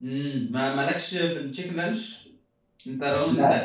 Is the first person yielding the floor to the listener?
No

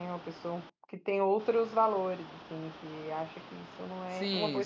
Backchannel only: No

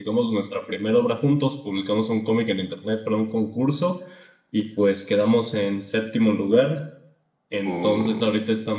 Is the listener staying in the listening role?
Yes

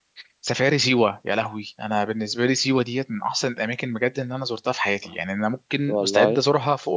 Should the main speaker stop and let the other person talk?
No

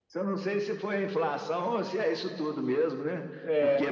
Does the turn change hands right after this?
No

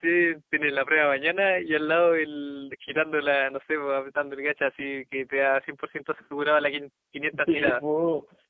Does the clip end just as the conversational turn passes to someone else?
Yes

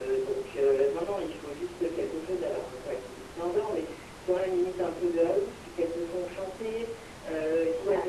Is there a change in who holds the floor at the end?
No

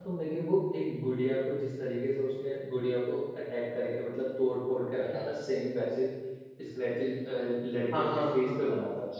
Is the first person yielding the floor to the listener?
Yes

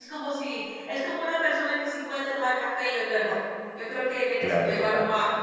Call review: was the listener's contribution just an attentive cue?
Yes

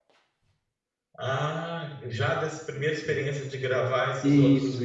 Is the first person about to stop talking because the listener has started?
Yes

